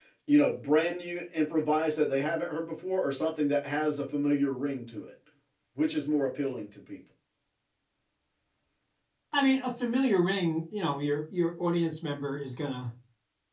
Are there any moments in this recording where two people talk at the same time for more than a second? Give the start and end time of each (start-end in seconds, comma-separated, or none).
none